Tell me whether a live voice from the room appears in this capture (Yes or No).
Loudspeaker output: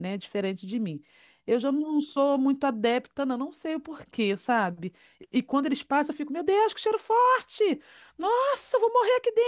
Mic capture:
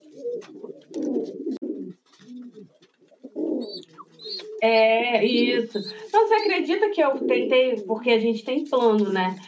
Yes